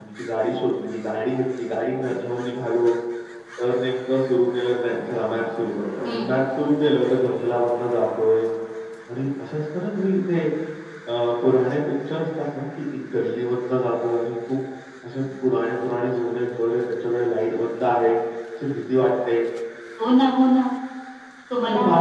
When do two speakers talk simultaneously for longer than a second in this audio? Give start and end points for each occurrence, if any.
none

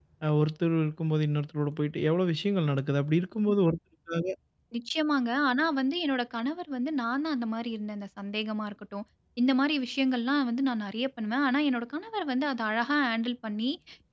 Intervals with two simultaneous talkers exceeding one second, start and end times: none

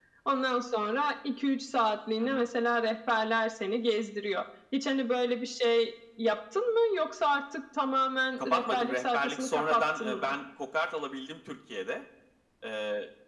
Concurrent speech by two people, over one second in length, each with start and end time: 8.4-10.3

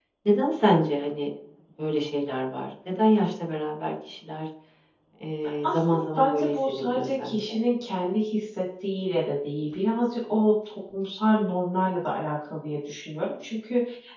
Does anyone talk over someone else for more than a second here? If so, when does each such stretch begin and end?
5.6-7.6

